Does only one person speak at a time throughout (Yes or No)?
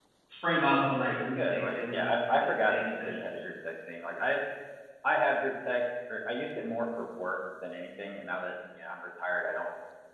No